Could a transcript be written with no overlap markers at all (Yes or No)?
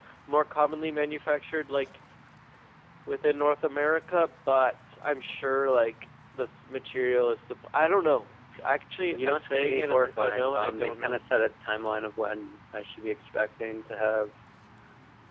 No